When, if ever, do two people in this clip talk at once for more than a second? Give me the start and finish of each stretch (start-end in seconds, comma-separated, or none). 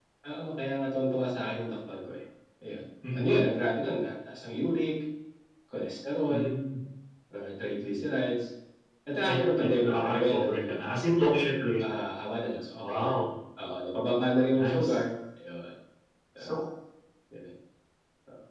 9.2-10.8